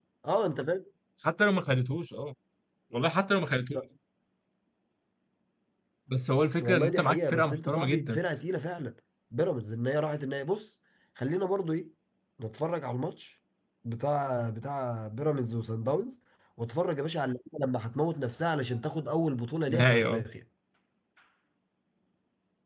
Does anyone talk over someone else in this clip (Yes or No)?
Yes